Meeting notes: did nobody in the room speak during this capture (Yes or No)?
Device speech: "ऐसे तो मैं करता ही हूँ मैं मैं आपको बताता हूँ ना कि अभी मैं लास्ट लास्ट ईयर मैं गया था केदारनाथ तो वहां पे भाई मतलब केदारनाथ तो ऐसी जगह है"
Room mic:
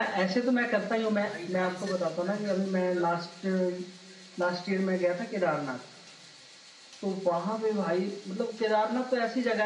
No